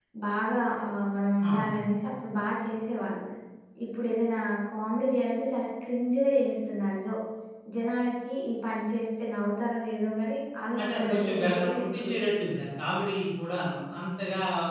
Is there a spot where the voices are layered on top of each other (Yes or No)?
Yes